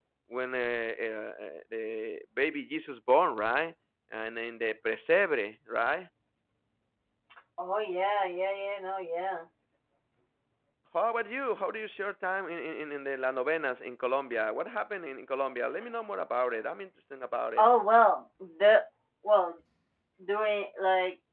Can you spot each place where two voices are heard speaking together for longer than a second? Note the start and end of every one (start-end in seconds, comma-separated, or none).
none